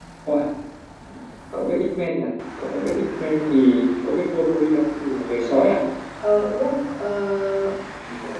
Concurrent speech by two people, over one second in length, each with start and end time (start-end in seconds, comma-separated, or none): none